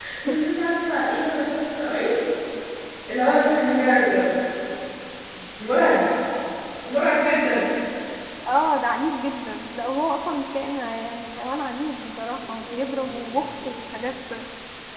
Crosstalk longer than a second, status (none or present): none